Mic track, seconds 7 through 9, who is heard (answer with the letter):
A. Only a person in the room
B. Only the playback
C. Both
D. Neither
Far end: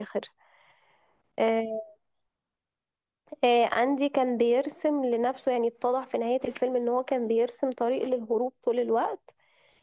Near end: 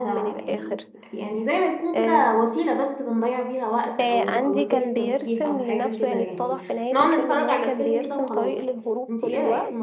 C